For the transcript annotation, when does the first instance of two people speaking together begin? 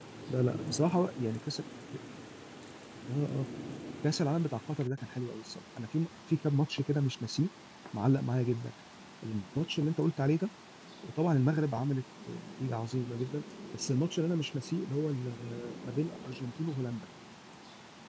none

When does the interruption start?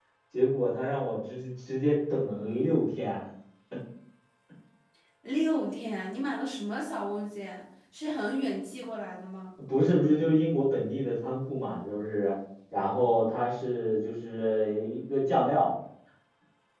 none

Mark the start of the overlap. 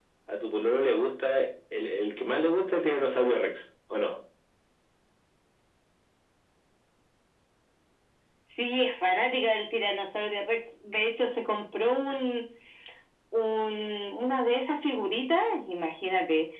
none

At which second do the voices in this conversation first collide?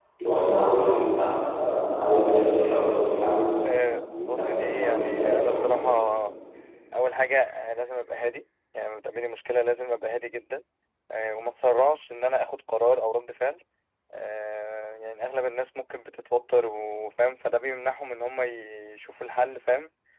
4.2 s

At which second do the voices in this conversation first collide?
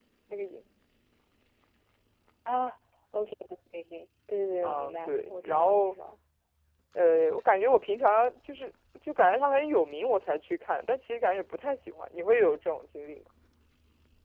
4.6 s

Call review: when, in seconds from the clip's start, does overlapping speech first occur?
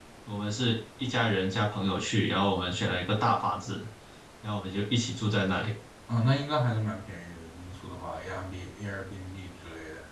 none

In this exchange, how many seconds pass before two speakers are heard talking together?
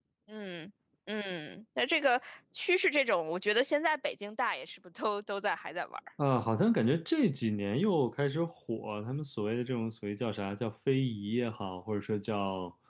none

